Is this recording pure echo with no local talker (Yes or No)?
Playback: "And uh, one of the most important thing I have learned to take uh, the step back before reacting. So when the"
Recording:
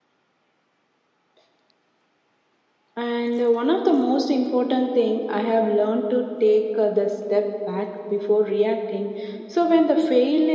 Yes